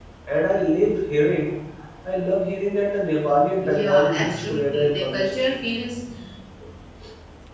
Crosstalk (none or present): present